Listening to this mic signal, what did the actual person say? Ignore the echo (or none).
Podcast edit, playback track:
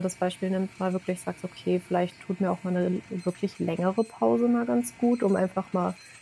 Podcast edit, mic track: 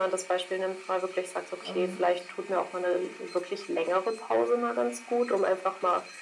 ähm,